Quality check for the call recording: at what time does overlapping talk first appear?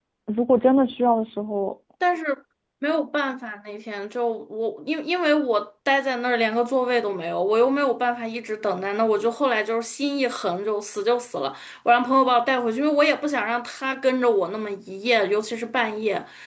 none

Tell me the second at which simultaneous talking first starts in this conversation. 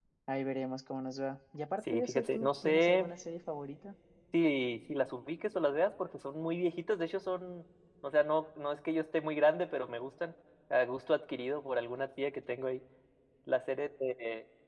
2 s

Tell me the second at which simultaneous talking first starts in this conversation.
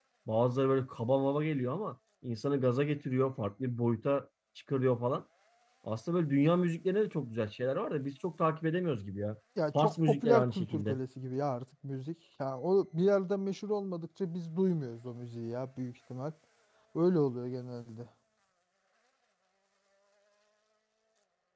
10 s

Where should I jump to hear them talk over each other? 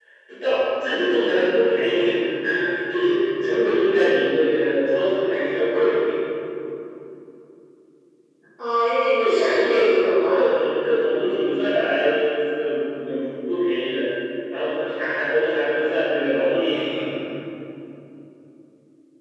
9 s

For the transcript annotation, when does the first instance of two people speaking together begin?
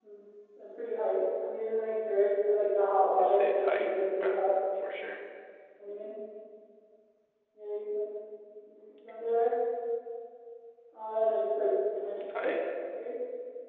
3 s

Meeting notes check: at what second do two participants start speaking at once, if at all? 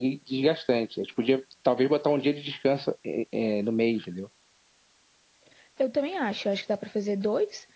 none

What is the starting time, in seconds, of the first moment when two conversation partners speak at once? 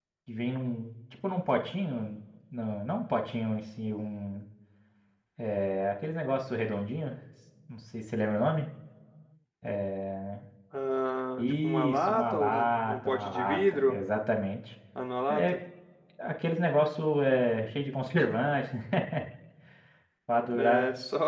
11 s

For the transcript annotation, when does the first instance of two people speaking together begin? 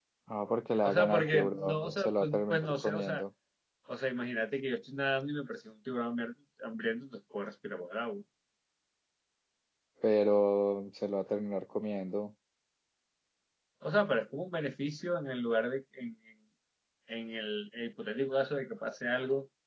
1 s

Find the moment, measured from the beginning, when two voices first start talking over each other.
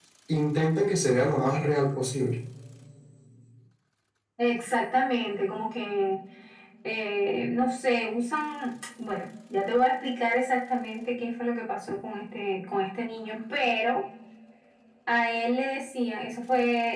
none

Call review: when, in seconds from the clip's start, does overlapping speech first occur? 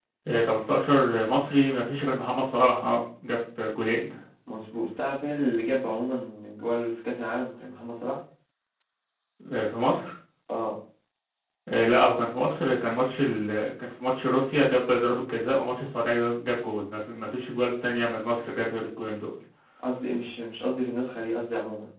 none

